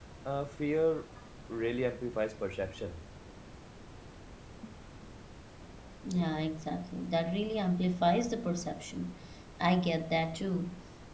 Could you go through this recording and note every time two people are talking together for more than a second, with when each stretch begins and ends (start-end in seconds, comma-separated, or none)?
none